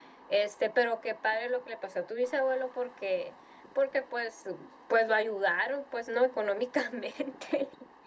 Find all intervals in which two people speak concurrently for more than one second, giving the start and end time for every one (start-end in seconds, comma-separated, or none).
none